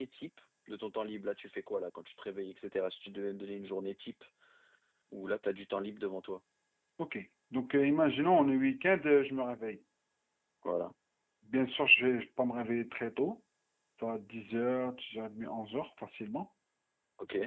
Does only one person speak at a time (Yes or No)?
Yes